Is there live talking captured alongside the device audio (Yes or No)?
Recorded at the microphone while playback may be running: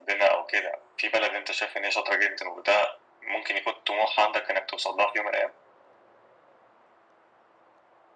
No